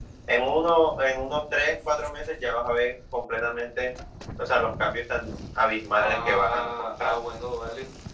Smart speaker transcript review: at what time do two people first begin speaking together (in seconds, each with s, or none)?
5.9 s